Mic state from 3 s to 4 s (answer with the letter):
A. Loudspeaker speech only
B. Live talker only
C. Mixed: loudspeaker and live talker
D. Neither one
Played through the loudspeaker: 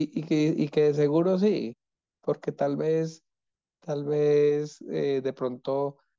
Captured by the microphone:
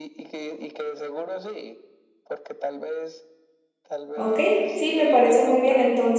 A